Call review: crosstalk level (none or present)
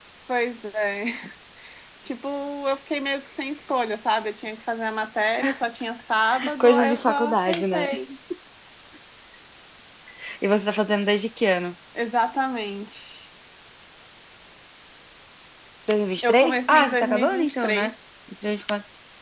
present